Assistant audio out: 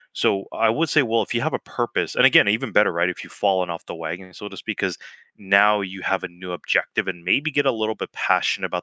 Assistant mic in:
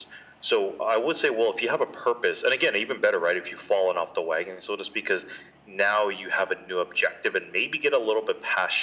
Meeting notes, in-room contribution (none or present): none